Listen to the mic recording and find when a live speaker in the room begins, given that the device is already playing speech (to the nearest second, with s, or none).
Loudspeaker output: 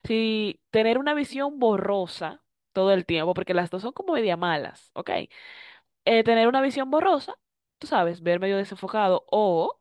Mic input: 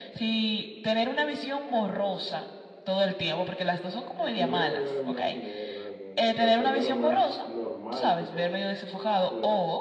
4 s